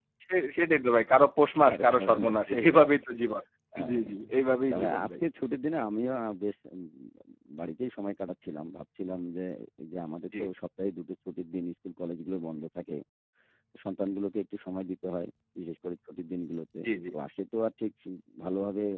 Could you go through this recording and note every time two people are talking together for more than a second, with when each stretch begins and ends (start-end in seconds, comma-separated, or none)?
1.7-2.9